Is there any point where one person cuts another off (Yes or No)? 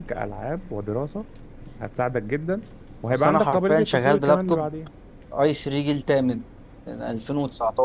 Yes